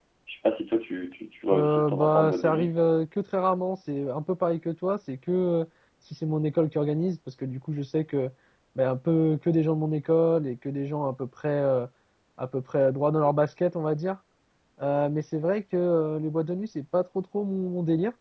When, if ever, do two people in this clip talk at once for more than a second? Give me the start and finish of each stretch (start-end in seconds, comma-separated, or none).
1.5-2.7